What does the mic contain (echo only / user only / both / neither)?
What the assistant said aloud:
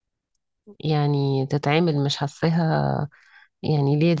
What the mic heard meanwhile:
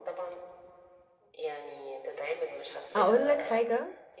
both